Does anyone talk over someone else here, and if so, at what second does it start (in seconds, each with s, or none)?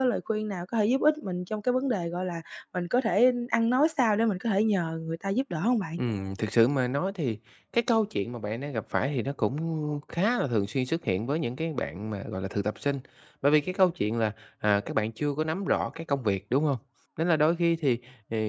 none